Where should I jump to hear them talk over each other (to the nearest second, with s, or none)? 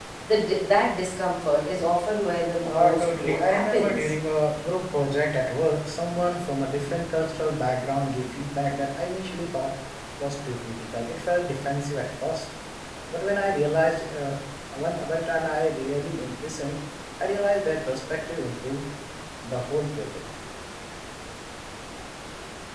3 s